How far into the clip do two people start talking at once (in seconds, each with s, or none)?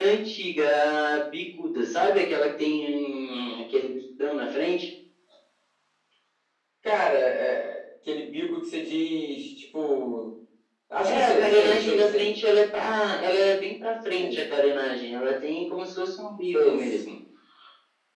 11.1 s